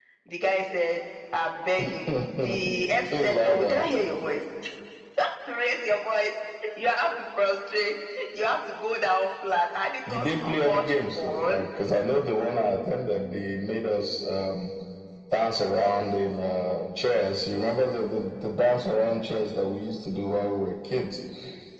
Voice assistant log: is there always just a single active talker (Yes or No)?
No